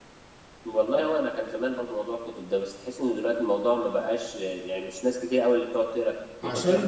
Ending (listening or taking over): taking over